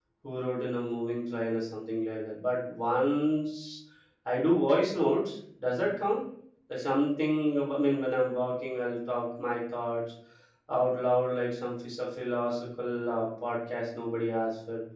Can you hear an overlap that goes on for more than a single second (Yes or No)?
No